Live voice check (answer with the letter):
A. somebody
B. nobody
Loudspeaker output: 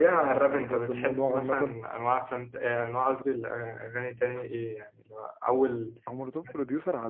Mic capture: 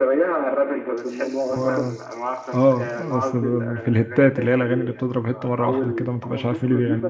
A